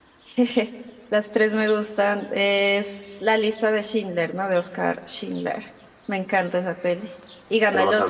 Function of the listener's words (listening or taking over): taking over